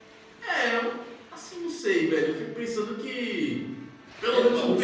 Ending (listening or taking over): taking over